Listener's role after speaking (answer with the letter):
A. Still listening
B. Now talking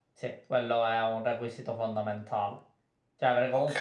A